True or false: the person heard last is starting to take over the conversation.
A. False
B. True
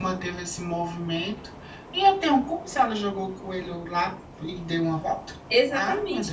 B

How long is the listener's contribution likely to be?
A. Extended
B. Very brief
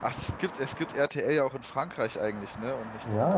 A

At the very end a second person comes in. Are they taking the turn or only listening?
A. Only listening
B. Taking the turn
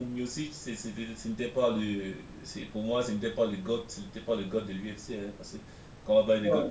B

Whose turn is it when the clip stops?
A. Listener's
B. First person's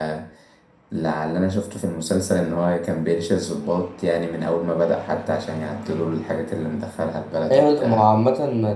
A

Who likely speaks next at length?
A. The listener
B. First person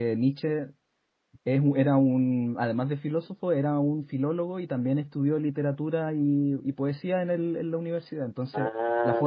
B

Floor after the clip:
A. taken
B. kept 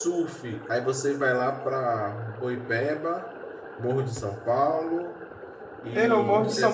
A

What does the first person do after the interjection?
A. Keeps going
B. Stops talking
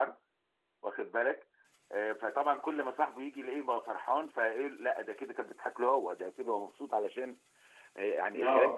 A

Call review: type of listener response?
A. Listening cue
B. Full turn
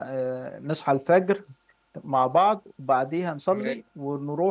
A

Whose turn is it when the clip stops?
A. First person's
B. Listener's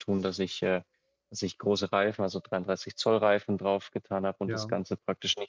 A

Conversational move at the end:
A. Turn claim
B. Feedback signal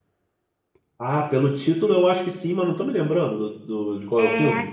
A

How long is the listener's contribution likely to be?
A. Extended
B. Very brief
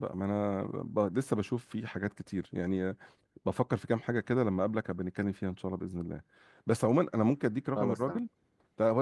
B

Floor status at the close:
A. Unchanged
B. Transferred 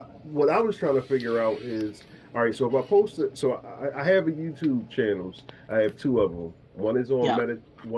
A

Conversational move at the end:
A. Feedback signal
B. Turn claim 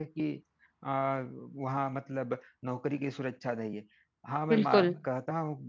A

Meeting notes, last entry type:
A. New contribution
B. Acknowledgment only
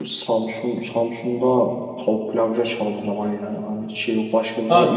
A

